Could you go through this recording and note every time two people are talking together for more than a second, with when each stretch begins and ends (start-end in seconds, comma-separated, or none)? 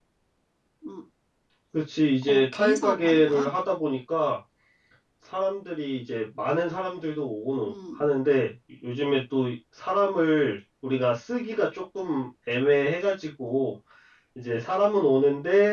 2.3-3.5